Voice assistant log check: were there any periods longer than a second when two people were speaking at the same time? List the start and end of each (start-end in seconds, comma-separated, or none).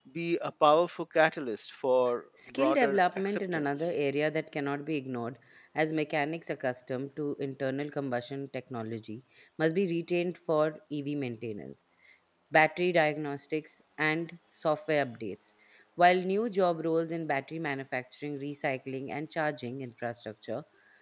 2.6-3.9